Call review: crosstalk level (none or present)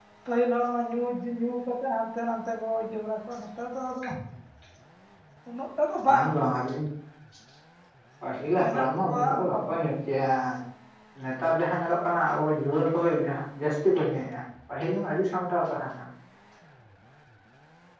present